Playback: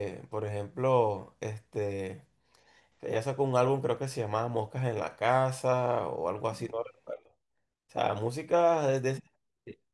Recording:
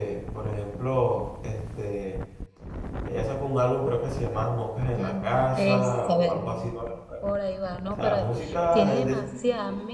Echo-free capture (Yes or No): No